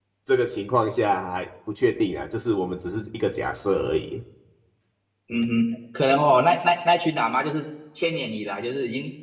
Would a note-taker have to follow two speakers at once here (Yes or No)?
No